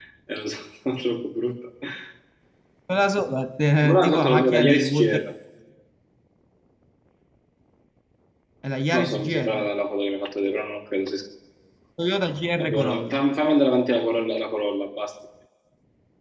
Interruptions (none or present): present